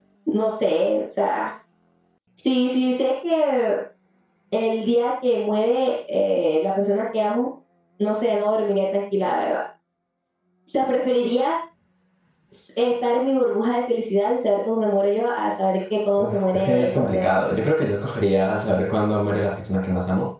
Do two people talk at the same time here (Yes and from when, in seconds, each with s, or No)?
Yes, from 16.2 s